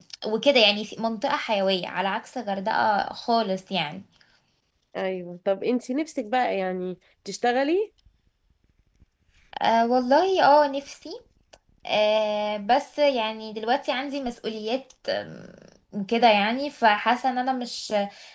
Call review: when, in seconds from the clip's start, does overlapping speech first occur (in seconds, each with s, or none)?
none